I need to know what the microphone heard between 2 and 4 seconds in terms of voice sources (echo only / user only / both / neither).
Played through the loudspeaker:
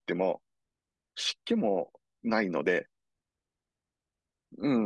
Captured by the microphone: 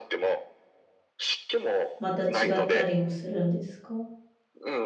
both